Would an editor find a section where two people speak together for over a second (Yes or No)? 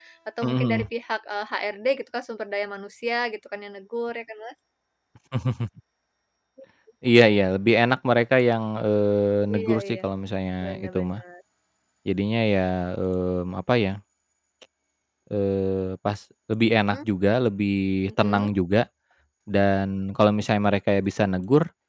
No